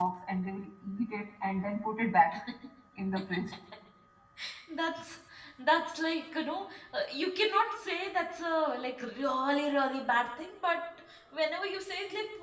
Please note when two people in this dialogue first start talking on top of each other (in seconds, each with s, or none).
none